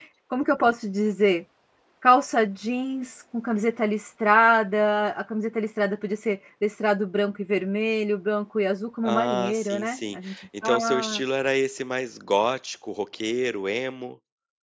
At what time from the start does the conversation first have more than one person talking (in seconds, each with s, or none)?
9.1 s